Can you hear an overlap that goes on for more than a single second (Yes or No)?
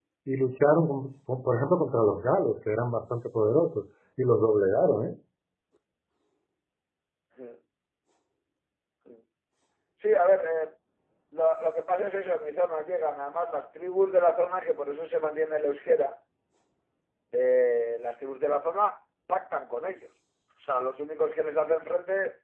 No